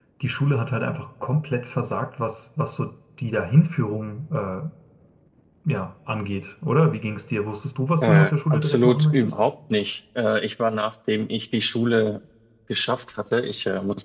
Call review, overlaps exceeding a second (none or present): present